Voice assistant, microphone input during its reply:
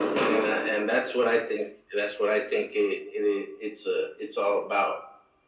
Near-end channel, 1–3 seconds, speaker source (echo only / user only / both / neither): echo only